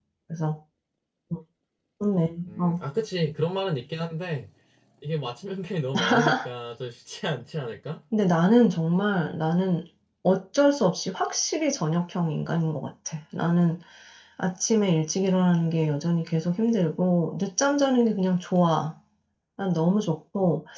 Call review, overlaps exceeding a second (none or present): none